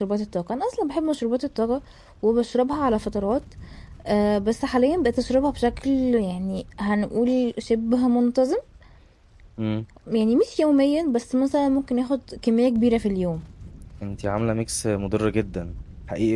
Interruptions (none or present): none